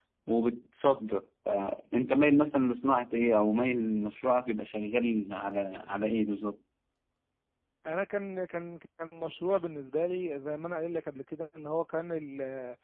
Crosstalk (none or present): none